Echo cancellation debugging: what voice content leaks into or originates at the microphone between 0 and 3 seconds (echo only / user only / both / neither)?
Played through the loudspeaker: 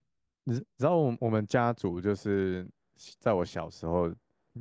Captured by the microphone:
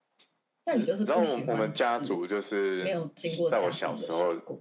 both